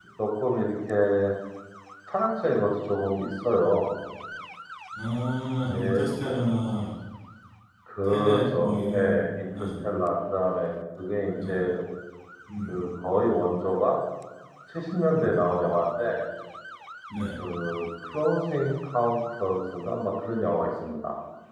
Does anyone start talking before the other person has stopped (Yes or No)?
Yes